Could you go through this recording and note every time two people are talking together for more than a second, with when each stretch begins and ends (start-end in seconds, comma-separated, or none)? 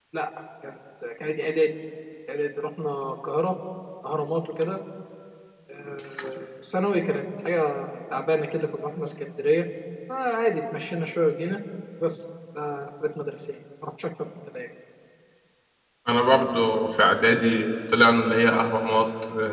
none